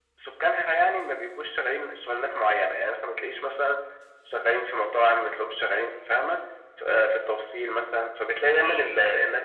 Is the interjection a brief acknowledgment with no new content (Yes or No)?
Yes